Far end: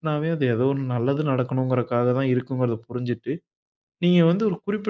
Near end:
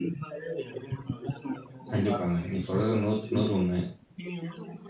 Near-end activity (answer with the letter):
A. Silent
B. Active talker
B